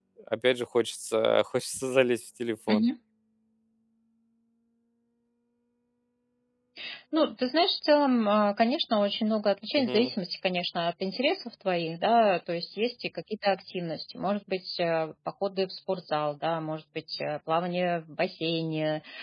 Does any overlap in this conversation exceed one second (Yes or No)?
No